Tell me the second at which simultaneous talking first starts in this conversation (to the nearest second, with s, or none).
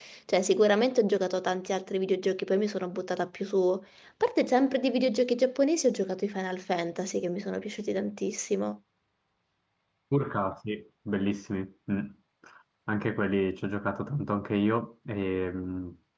none